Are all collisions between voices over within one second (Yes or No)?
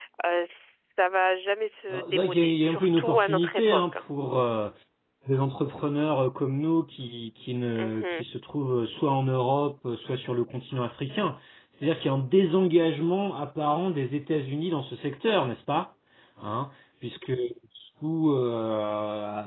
No